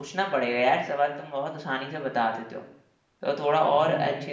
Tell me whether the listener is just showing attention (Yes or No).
No